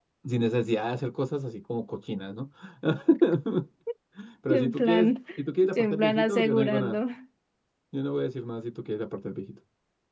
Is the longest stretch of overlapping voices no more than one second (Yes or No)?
No